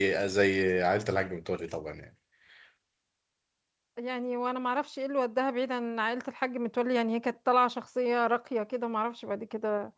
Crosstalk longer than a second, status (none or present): none